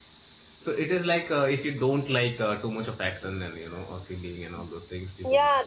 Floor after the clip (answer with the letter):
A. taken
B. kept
A